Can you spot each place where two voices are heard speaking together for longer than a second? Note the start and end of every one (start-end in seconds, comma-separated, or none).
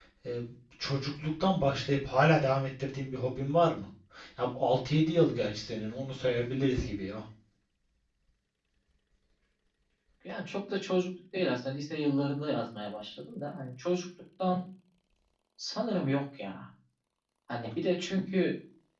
none